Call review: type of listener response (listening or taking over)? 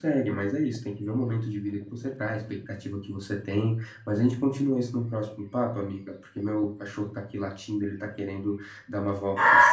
taking over